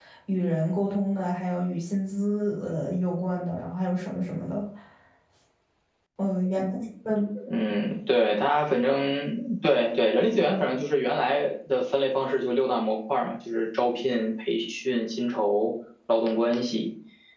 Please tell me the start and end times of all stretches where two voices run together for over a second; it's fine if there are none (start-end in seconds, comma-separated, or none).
none